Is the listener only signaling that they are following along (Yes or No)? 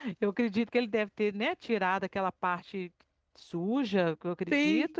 Yes